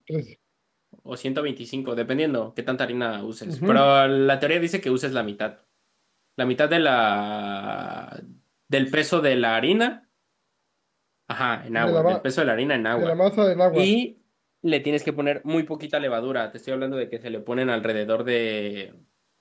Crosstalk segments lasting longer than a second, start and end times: none

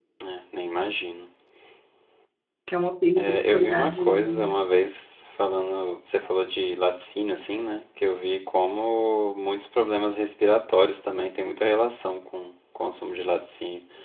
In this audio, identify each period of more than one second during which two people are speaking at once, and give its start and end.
3.2-4.6

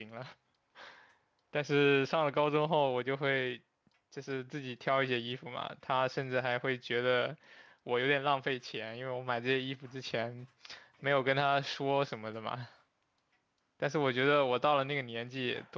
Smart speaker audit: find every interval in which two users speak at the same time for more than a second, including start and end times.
none

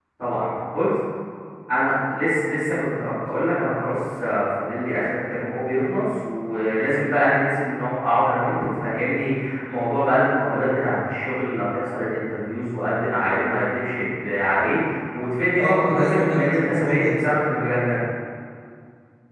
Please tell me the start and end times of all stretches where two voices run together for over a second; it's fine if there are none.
15.6-17.3

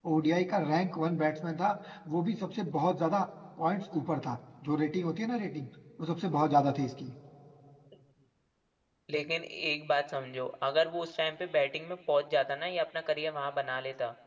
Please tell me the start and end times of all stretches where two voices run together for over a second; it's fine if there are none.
none

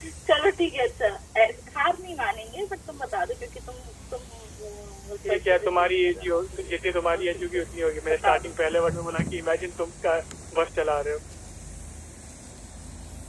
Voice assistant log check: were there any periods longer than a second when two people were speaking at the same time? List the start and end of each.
5.3-6.7

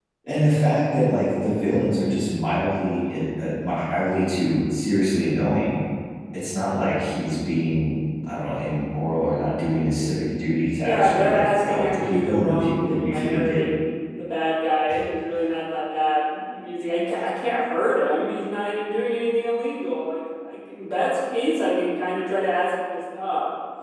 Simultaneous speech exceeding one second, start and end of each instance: 10.8-13.6

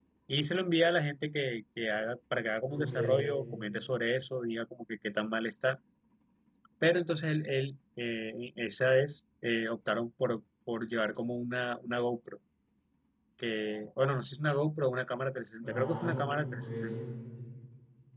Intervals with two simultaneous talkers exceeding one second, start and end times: 15.6-16.9

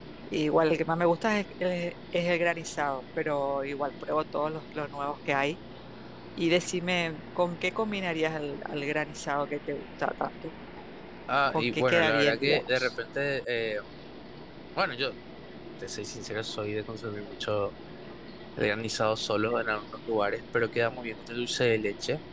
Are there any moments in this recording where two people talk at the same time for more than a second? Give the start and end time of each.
11.5-12.9

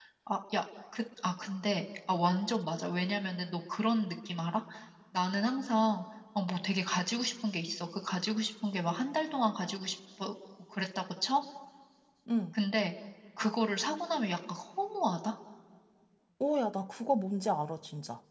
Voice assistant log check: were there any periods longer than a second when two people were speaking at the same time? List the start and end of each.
none

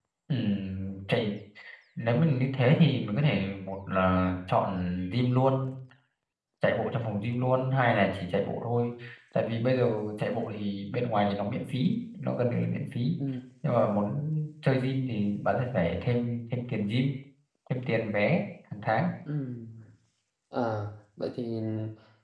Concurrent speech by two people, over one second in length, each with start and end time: none

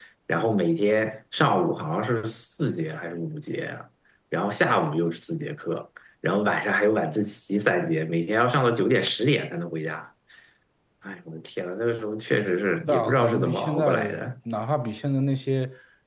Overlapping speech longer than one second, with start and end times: 12.9-14.2

